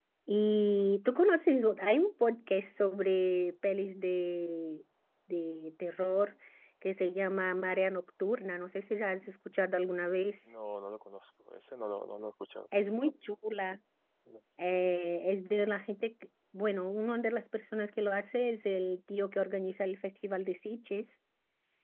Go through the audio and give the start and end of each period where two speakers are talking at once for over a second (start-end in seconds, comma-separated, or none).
none